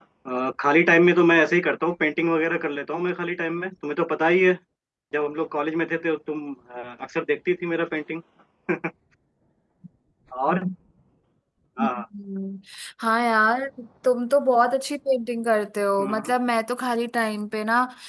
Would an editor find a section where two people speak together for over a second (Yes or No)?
No